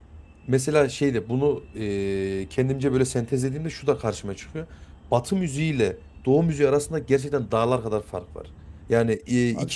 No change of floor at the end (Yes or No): Yes